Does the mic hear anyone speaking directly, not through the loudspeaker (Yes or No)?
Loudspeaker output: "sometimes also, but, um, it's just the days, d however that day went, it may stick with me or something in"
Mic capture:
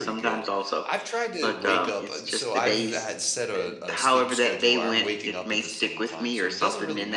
Yes